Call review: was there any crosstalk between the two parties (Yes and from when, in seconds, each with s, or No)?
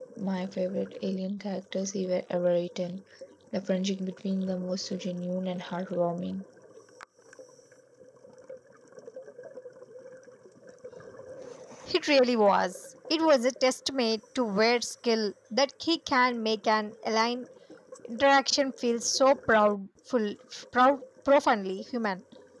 No